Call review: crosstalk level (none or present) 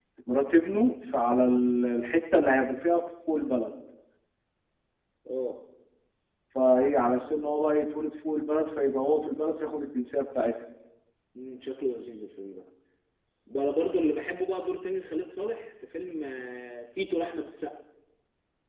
none